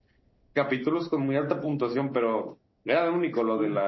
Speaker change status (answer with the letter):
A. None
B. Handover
A